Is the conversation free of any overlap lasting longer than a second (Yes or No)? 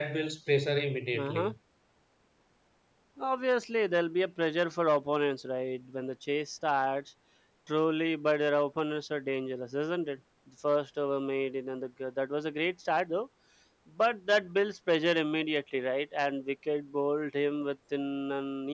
Yes